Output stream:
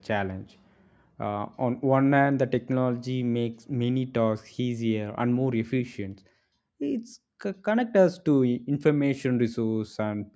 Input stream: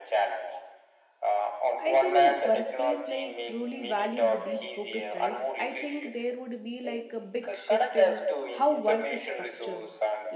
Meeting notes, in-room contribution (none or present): present